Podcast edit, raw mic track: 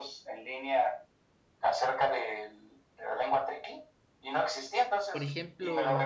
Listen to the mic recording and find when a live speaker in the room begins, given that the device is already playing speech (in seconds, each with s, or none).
5.1 s